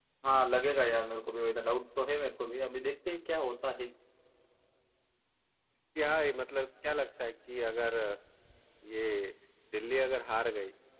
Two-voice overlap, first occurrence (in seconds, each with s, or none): none